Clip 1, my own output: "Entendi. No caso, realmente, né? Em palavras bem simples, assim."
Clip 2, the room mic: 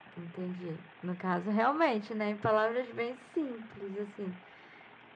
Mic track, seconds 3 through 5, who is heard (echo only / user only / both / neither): echo only